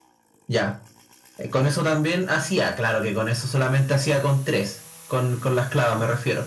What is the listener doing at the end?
listening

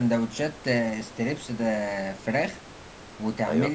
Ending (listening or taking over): listening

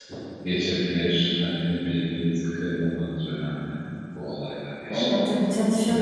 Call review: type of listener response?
taking over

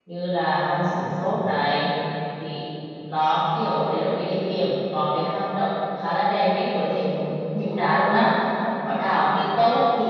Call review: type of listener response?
listening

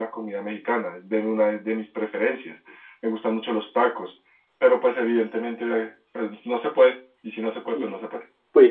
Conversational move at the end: taking over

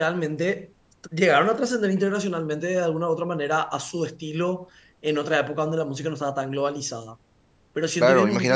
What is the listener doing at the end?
taking over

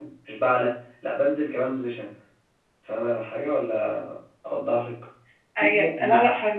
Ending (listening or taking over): taking over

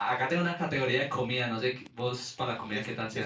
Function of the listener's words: taking over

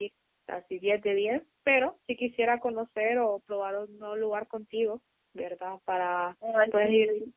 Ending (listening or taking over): listening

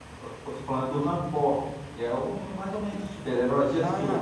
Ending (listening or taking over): taking over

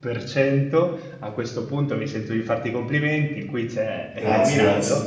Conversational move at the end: listening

